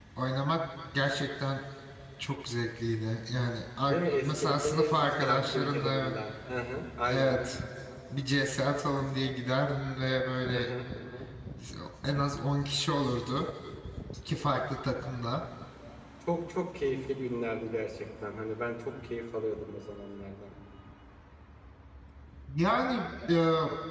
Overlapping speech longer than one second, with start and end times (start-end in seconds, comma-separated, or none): 3.9-6.1